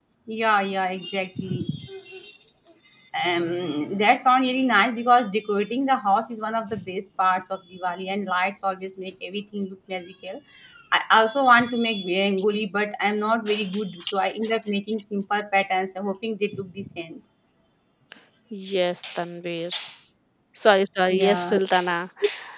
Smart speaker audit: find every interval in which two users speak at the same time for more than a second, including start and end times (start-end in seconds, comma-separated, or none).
none